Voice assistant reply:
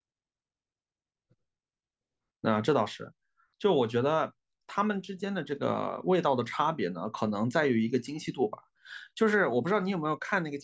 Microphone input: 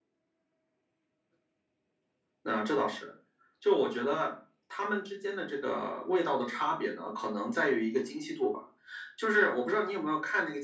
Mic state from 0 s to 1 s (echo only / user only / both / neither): neither